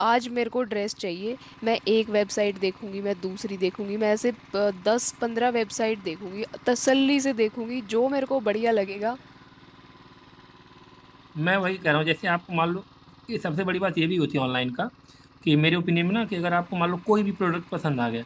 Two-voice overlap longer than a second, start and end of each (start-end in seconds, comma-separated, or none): none